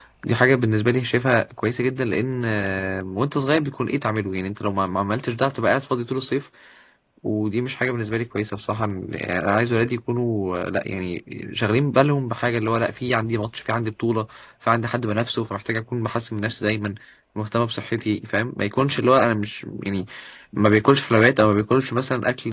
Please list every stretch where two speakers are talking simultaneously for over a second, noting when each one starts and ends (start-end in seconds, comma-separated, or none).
none